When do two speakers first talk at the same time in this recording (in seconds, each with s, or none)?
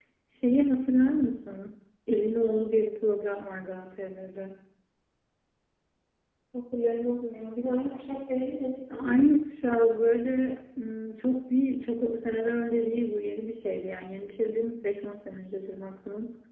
none